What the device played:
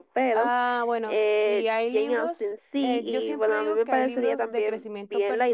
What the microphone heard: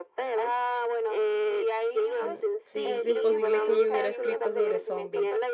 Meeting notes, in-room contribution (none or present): present